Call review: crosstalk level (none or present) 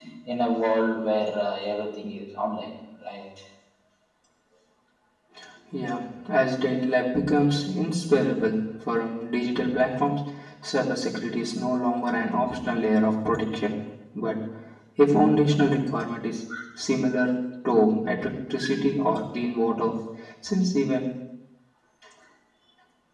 none